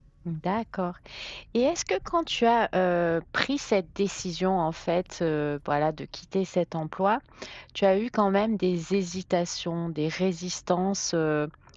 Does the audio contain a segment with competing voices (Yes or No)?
No